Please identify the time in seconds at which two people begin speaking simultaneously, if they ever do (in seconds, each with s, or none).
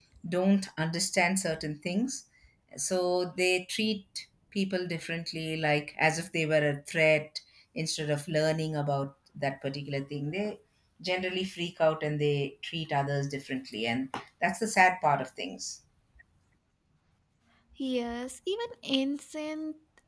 none